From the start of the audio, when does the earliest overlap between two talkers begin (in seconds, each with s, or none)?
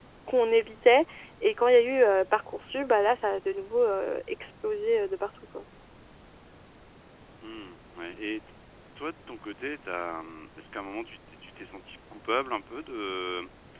none